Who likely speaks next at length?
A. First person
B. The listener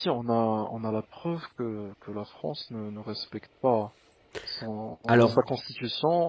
A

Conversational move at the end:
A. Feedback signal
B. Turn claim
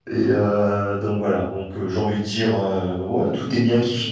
A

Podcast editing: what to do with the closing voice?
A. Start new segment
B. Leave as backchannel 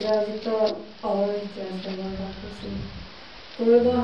B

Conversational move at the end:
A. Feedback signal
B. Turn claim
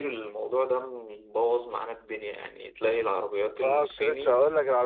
B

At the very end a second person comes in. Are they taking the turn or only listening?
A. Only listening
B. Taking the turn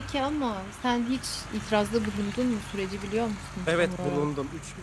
B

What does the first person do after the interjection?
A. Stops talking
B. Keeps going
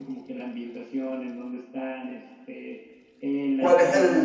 A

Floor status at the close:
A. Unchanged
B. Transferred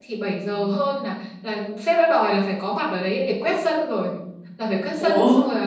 A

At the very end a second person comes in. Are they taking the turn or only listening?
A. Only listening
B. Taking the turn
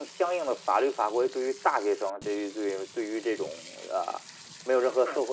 A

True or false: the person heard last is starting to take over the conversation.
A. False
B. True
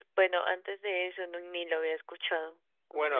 B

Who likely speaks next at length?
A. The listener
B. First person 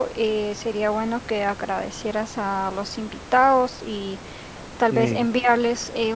B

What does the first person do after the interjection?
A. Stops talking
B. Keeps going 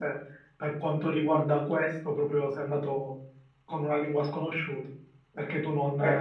B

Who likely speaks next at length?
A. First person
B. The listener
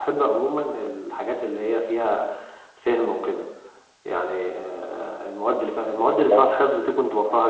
A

